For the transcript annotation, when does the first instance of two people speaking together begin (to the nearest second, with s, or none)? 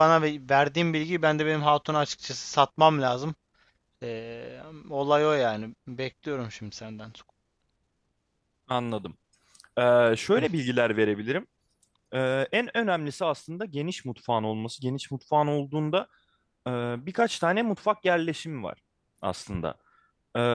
none